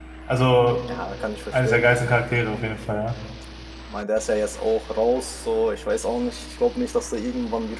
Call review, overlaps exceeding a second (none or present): none